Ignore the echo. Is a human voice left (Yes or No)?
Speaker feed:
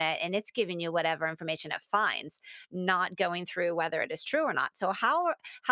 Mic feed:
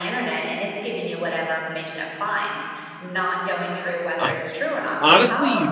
Yes